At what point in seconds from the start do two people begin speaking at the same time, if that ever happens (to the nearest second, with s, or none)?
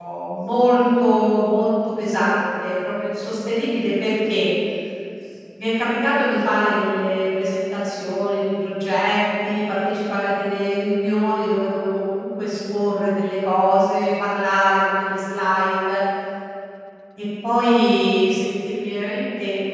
none